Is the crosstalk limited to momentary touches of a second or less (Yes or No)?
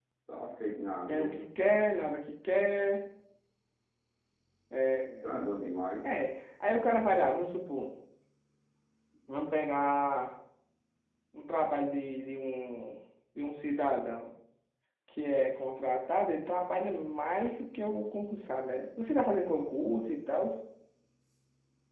Yes